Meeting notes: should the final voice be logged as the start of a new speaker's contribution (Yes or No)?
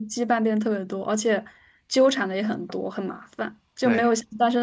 No